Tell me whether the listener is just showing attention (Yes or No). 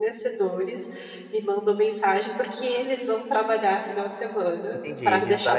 No